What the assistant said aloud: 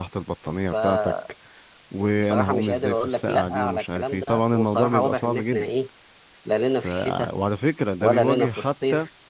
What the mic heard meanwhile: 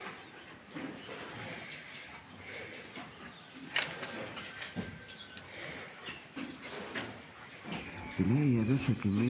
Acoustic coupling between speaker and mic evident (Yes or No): No